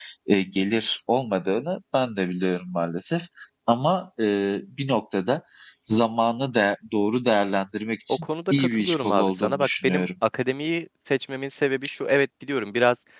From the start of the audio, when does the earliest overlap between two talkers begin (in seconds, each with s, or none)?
8.1 s